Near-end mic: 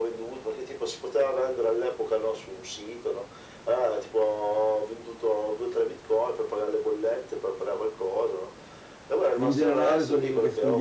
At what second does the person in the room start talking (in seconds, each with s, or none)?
9.4 s